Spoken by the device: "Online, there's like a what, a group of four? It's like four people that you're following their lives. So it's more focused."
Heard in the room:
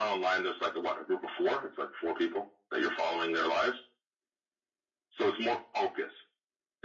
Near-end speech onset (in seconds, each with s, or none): none